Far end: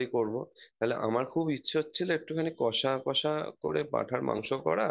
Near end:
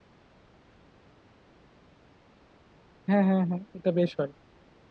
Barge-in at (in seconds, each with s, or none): 3.1 s